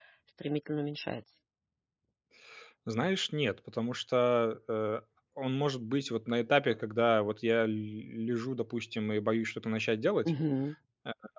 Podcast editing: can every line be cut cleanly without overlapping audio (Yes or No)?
Yes